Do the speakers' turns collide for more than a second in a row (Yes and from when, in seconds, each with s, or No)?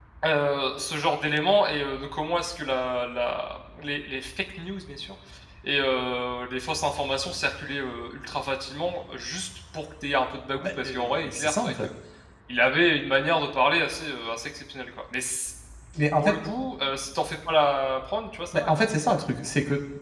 Yes, from 10.6 s